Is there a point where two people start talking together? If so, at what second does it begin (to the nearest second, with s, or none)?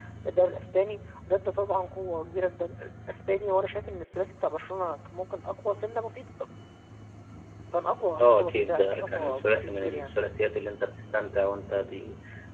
8 s